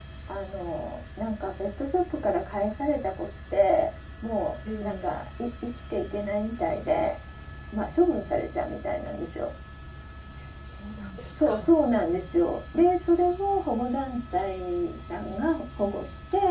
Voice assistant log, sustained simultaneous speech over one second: none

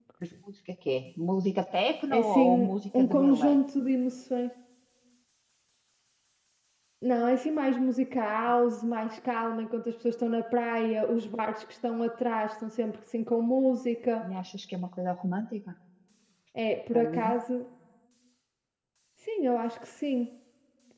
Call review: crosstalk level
present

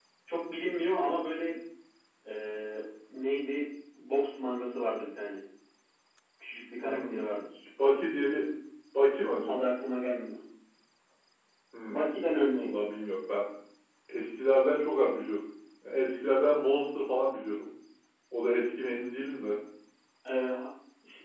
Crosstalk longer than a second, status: none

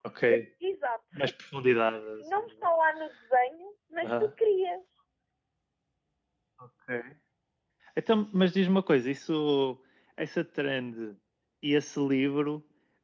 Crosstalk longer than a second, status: none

